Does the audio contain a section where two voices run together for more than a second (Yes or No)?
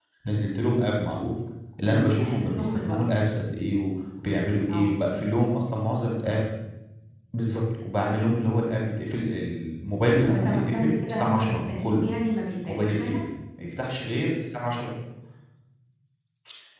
Yes